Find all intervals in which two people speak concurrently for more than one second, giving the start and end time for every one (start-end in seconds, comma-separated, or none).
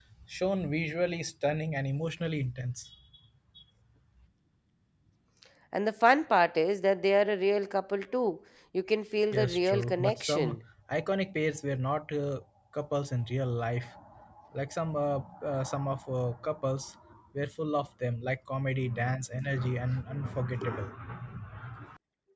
9.3-10.6